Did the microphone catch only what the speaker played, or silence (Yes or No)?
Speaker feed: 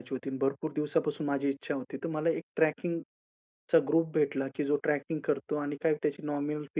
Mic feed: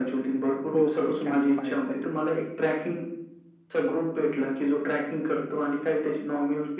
No